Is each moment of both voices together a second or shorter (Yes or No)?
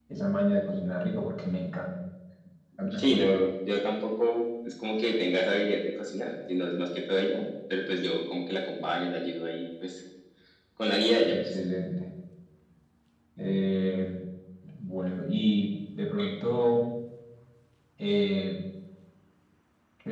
Yes